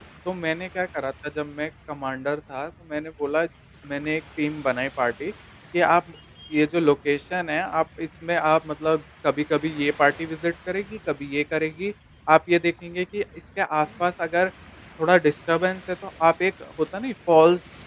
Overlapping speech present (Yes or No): No